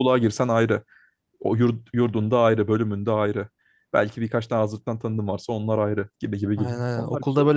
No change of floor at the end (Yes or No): No